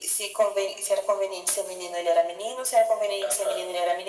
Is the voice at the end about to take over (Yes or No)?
No